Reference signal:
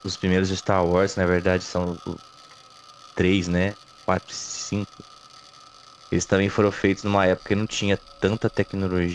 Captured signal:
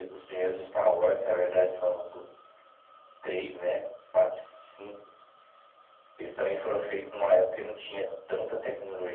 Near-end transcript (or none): none